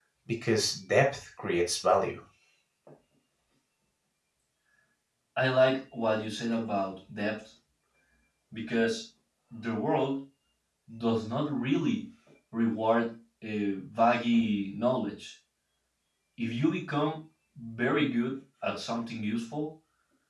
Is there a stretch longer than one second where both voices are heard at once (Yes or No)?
No